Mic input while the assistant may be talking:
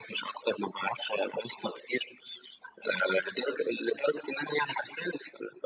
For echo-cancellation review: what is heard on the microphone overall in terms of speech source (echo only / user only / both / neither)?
echo only